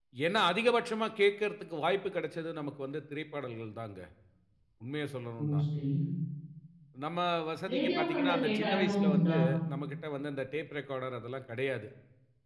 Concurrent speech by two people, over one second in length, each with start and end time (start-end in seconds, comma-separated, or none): 7.7-9.3